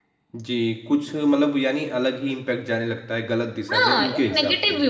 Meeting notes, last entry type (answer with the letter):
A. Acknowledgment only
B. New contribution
B